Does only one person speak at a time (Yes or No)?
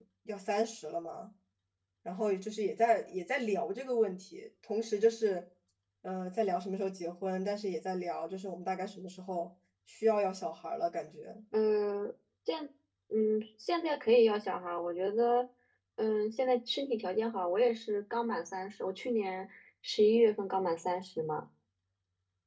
Yes